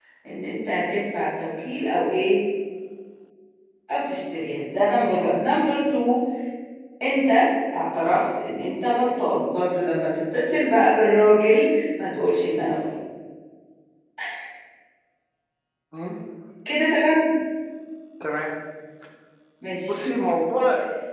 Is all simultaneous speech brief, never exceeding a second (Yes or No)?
Yes